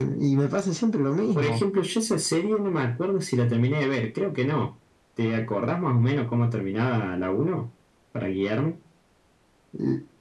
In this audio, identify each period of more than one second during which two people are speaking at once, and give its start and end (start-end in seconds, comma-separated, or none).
none